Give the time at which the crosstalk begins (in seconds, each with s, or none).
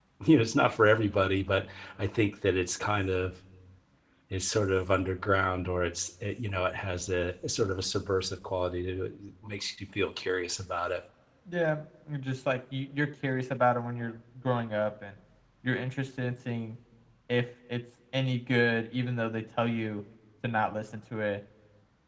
none